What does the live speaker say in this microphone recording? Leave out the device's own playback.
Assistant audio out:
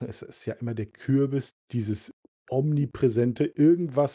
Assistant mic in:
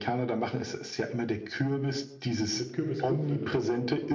Mit Kürbiswürfeln drauf?

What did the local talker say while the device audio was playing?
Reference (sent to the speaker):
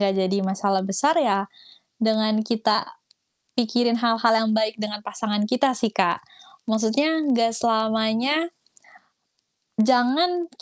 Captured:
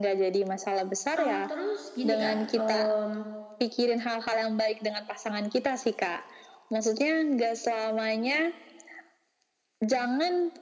Mmm, terus gini Kak, mmm,

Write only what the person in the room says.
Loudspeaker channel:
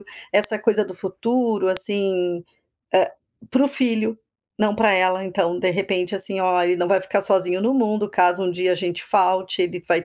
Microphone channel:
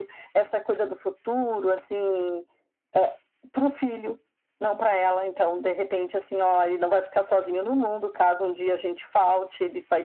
none

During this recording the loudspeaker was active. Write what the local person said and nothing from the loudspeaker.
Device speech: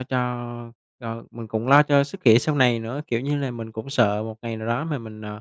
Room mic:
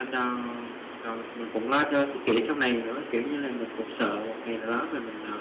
none

